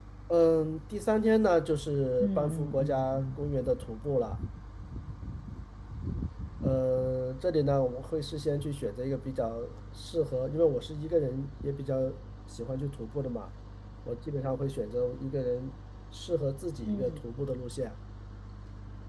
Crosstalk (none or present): present